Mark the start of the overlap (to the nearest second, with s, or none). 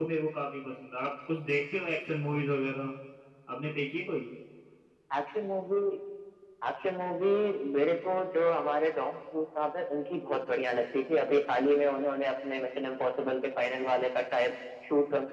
none